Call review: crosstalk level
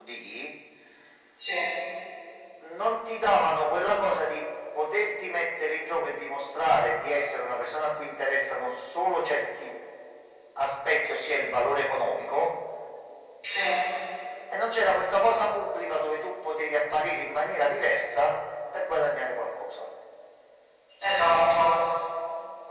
none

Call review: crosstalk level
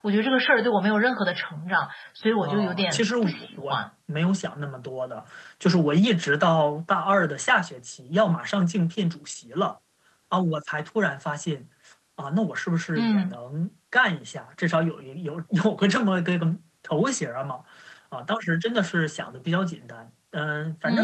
present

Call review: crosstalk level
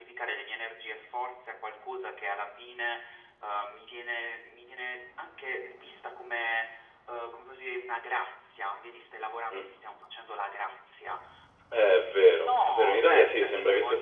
present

